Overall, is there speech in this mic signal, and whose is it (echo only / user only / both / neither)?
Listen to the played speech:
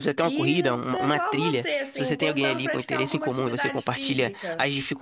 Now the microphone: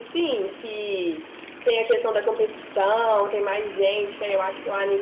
user only